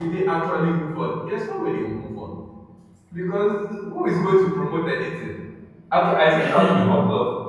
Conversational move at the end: listening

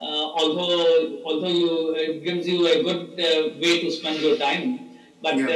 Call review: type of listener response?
listening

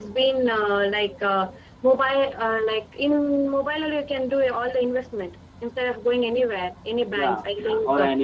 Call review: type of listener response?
taking over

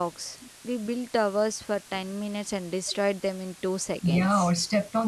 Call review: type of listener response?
taking over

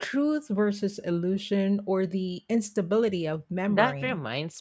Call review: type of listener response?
taking over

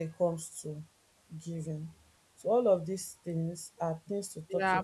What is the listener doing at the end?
taking over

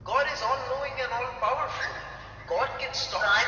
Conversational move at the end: taking over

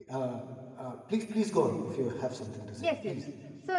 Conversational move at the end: taking over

